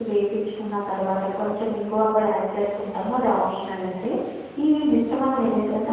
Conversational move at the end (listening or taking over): taking over